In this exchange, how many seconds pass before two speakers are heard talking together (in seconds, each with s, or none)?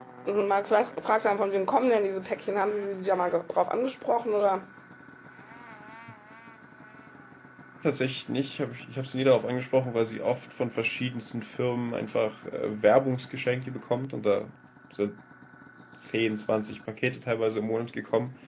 none